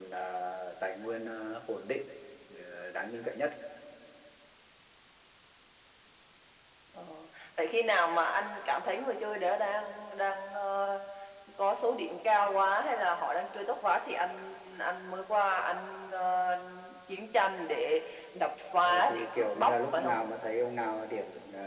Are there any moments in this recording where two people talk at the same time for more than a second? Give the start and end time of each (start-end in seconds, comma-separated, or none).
18.8-20.2